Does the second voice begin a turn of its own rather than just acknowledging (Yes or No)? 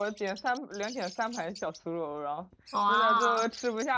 No